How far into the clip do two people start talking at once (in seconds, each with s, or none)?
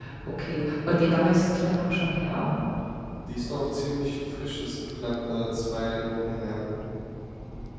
none